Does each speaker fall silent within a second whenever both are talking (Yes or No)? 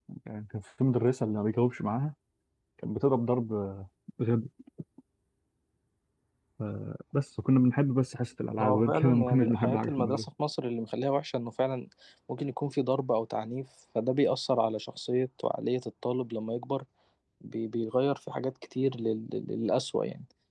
No